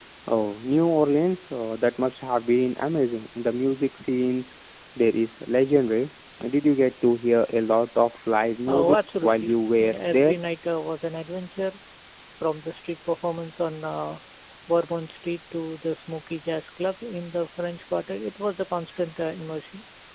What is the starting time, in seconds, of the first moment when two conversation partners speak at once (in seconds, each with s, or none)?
8.7 s